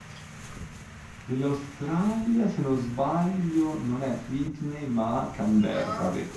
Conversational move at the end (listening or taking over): taking over